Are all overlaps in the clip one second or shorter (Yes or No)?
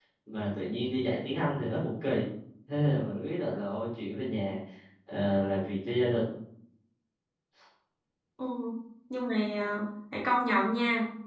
Yes